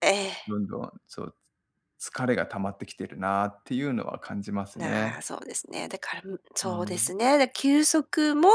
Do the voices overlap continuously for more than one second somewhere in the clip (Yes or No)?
No